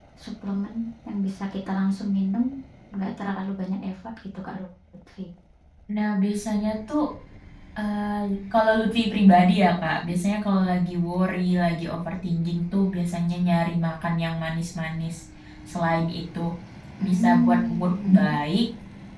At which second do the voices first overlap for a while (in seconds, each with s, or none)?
17.1 s